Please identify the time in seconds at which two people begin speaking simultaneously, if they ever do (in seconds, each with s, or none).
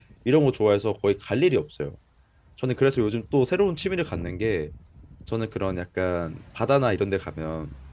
none